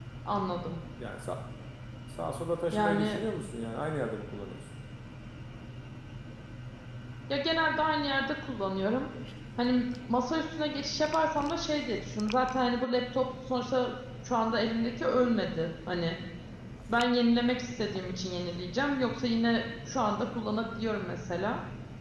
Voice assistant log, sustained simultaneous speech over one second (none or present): none